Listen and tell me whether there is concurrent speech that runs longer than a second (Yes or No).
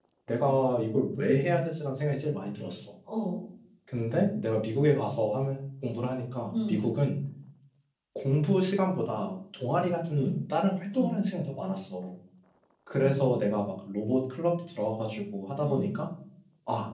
No